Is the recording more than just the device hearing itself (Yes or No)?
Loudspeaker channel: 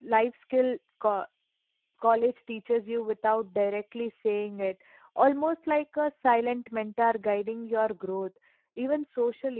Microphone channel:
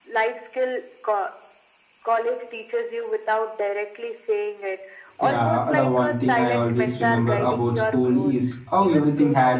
Yes